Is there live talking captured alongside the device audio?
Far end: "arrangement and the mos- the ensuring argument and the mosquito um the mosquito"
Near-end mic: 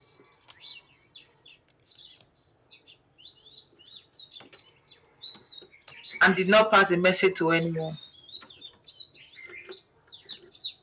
Yes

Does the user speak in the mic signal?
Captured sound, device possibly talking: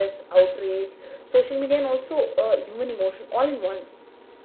No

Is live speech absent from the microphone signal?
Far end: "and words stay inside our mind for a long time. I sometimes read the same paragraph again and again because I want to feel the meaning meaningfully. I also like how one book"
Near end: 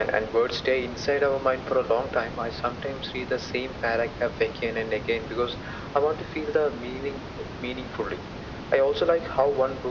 Yes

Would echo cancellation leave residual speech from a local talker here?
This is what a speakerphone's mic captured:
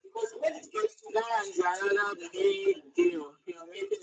No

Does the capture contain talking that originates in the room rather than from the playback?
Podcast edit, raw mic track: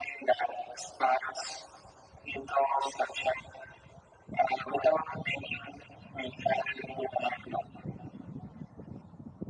No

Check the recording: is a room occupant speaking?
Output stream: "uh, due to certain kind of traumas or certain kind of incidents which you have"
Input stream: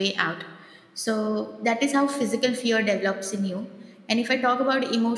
Yes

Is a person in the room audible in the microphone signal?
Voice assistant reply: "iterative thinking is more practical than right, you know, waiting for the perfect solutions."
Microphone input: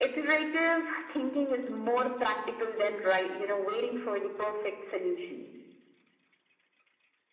No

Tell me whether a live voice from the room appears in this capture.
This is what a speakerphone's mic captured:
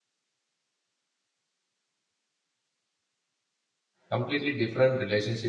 Yes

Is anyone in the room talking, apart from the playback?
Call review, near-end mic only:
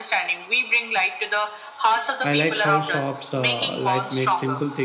Yes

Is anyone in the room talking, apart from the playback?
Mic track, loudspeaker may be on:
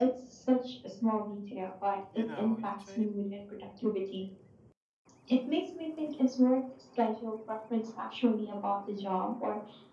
Yes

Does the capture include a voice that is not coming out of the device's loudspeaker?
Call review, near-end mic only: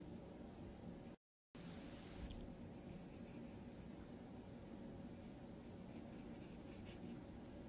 No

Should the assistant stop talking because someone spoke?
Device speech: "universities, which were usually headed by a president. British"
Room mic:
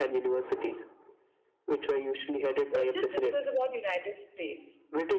Yes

